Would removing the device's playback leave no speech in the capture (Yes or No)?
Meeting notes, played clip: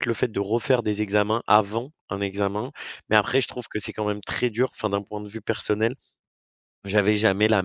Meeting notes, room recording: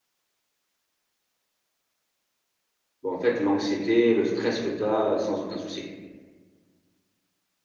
No